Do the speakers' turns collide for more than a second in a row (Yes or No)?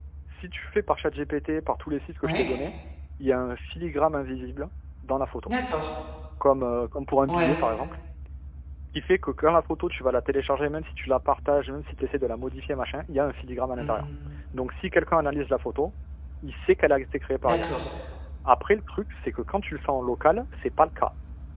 No